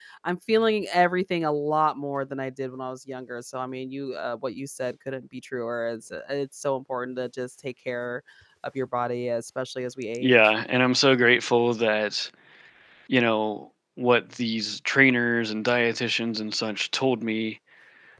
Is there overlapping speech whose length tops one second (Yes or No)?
No